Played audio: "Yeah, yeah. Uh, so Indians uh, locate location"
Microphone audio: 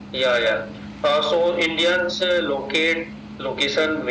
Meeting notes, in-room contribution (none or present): none